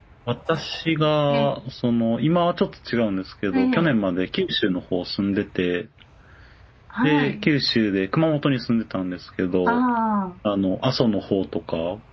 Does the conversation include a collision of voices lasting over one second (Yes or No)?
No